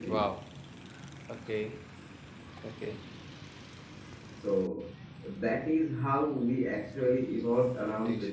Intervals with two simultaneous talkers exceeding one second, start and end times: none

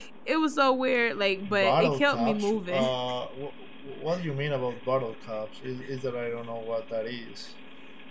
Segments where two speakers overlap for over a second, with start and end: 1.5-2.9

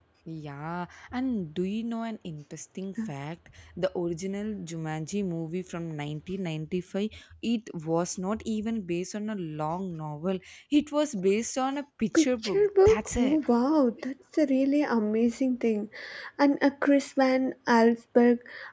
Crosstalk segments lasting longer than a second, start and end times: 12.1-13.4

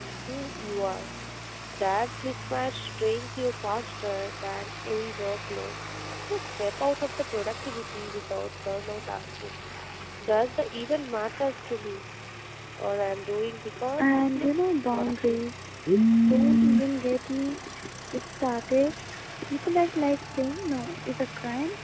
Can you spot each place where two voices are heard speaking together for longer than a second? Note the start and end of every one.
14.0-15.4

